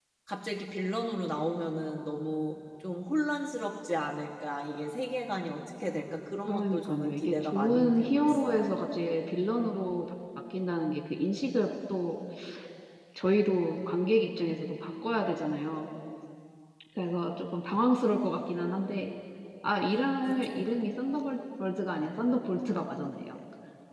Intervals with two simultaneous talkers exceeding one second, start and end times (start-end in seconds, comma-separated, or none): 6.5-8.7